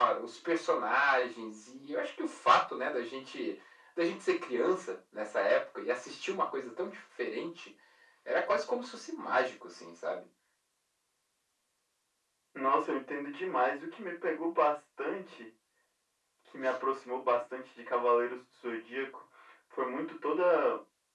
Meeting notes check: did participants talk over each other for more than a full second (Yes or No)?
No